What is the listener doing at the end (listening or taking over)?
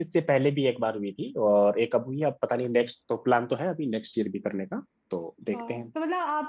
taking over